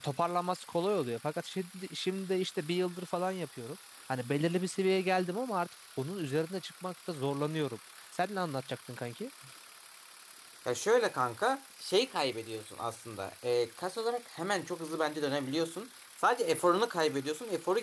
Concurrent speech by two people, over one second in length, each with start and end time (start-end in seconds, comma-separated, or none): none